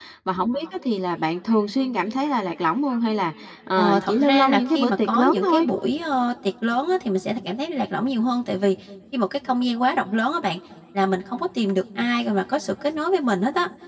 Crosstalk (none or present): present